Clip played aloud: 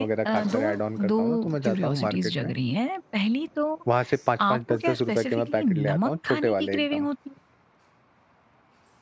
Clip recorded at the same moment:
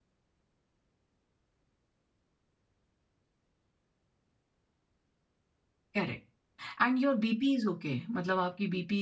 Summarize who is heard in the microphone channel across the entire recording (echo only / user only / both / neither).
user only